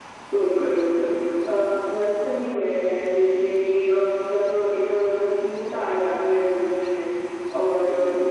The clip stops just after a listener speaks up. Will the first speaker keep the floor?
Yes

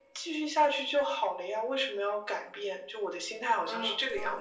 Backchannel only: No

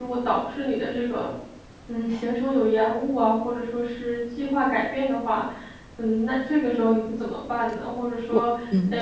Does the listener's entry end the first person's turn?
No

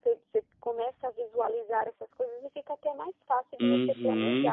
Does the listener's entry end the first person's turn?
Yes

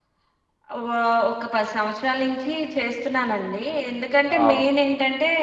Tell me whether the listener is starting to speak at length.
No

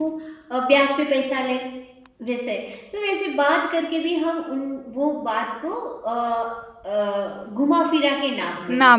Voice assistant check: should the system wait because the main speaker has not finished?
No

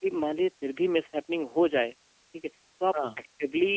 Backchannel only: Yes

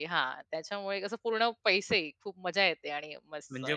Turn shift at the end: No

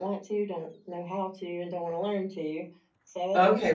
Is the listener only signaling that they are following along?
No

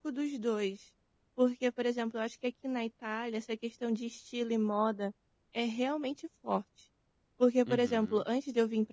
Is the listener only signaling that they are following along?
Yes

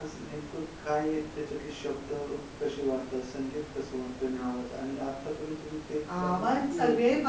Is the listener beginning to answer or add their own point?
Yes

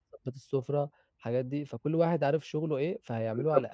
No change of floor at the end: No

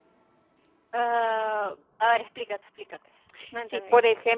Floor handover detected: Yes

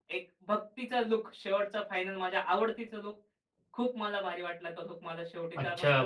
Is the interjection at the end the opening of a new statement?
Yes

